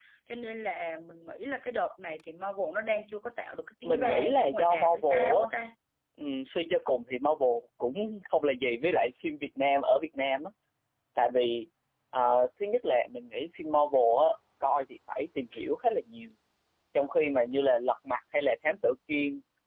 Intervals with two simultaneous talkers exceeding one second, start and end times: 3.8-5.5

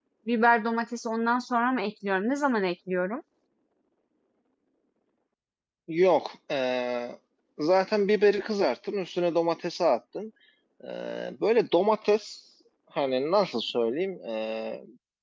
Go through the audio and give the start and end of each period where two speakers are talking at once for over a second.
none

